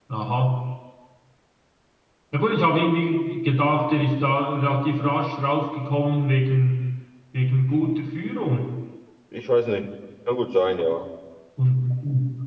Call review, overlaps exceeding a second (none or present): none